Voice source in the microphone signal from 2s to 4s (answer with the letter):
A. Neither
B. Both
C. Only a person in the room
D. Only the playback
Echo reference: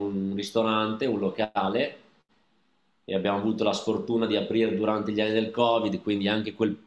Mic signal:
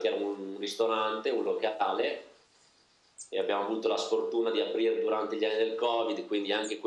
D